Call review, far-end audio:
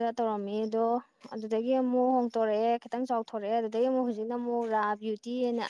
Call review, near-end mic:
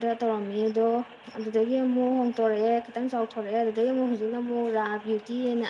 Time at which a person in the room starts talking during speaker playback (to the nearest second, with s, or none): none